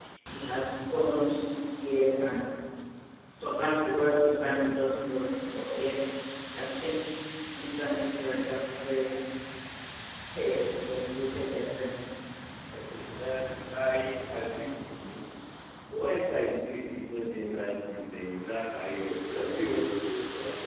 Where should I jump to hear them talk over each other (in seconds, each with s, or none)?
none